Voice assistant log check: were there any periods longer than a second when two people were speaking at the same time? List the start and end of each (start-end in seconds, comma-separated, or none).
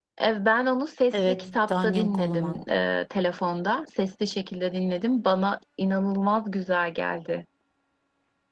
1.1-2.6